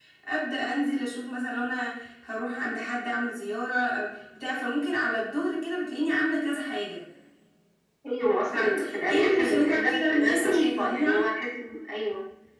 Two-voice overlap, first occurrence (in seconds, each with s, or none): 8.5 s